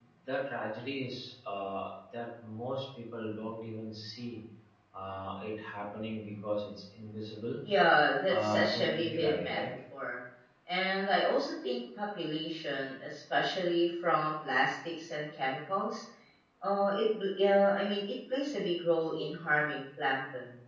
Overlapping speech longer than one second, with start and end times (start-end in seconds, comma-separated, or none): 8.3-9.6